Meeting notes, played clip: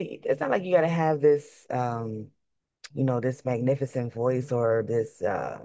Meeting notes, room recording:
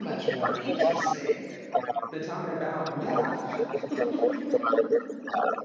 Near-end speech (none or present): present